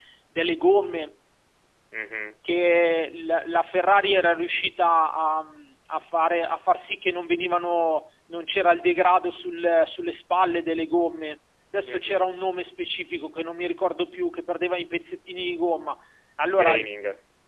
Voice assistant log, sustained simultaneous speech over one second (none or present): none